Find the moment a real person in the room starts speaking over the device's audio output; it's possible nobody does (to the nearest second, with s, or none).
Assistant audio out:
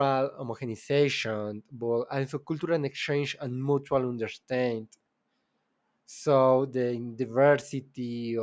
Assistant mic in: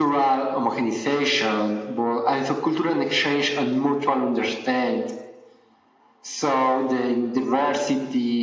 none